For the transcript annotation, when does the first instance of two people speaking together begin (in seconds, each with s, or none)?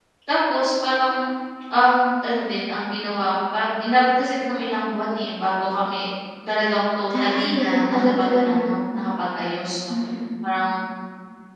7.1 s